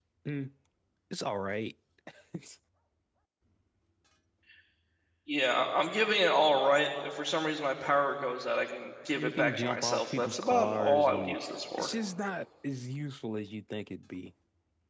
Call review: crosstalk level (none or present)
present